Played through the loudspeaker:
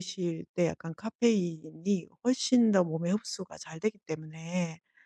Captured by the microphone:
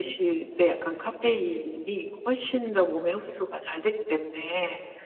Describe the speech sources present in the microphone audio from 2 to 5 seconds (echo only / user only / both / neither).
echo only